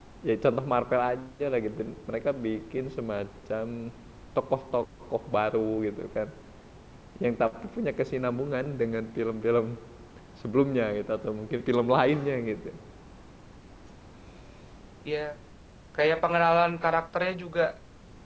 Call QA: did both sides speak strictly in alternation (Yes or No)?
Yes